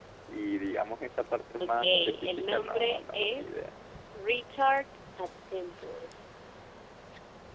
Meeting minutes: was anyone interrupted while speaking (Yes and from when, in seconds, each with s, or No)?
Yes, from 1.6 s